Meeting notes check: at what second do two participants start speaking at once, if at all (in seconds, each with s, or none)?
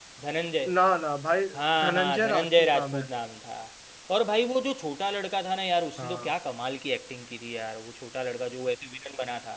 1.8 s